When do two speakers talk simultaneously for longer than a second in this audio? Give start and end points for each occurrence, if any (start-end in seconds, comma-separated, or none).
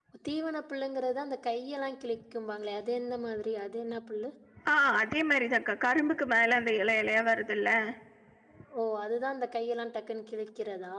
none